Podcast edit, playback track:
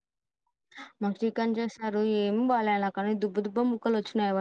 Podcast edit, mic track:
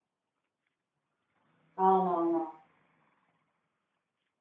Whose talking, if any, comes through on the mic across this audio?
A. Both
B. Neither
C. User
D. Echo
C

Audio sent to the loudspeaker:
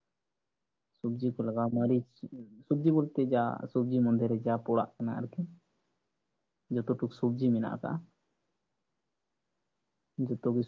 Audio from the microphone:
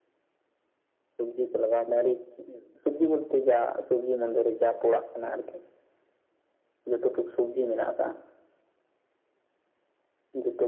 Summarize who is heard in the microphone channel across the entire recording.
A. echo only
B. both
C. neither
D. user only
A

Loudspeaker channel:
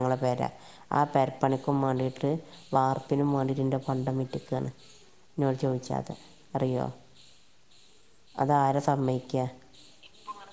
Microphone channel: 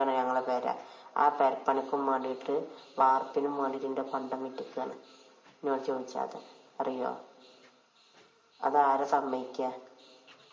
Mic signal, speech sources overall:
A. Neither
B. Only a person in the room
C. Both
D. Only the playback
D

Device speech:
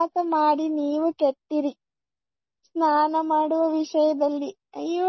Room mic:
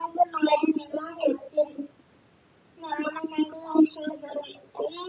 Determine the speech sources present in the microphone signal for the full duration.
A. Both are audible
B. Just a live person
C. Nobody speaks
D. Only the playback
D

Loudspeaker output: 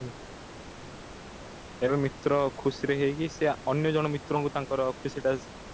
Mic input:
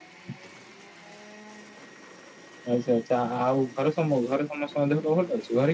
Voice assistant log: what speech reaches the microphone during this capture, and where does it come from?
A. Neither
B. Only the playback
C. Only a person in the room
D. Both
C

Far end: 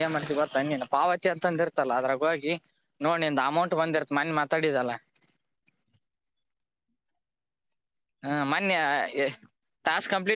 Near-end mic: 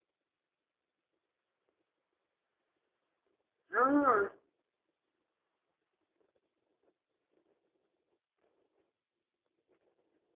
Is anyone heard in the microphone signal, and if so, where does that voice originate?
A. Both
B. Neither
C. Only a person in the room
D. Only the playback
C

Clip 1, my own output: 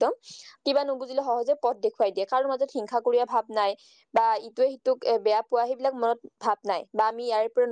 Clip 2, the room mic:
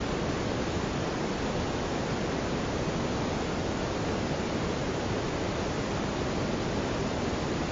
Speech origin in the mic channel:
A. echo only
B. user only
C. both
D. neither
D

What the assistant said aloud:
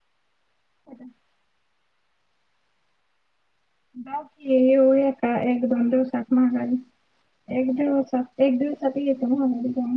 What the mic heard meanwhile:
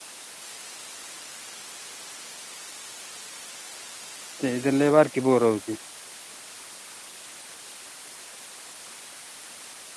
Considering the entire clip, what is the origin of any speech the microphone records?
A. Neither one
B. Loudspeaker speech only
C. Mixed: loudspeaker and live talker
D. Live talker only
D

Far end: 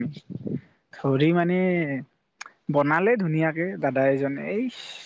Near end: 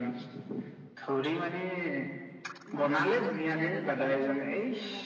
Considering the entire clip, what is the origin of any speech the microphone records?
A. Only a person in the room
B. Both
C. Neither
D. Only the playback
B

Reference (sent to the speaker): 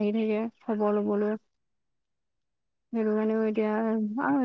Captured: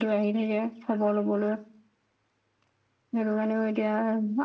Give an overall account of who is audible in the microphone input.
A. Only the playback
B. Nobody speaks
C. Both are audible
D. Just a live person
A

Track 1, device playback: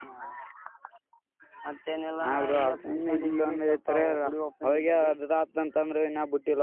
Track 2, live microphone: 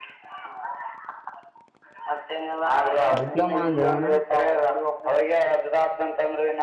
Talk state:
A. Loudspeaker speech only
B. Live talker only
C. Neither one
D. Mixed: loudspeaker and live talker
D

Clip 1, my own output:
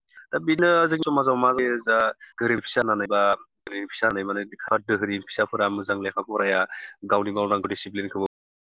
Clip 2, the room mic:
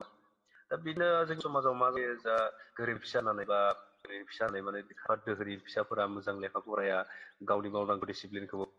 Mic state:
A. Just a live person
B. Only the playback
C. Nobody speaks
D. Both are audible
B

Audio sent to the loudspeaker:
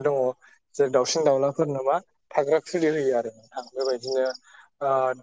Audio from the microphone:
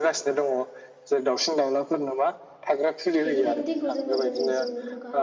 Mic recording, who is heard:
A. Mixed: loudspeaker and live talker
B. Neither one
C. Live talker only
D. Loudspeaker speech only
A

